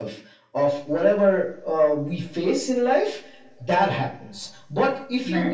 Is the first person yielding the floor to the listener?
No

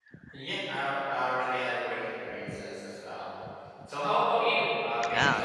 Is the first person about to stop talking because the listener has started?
Yes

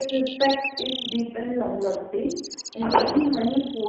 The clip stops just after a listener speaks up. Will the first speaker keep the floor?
Yes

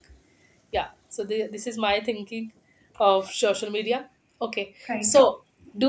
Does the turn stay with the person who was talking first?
Yes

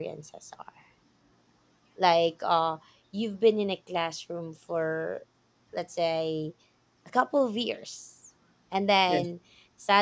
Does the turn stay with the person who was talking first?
Yes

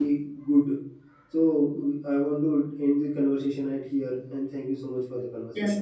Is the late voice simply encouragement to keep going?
No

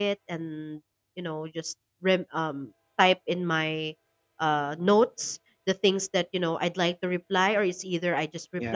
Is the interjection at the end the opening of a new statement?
No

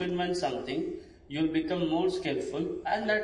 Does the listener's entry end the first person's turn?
No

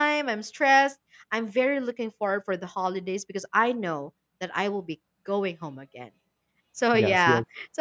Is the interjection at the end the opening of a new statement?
No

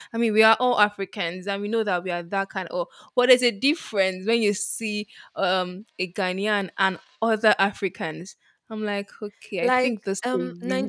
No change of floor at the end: No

